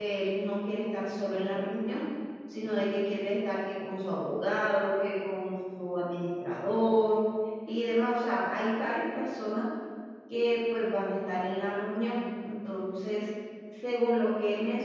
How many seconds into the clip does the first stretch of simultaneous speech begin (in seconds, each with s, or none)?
none